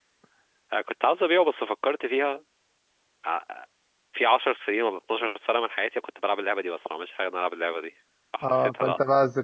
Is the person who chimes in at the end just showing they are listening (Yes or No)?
No